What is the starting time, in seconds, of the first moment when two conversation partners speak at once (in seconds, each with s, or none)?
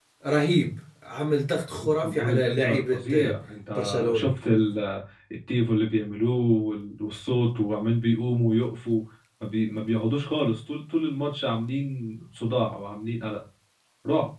1.8 s